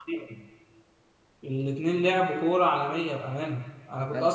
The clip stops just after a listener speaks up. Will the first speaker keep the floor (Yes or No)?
Yes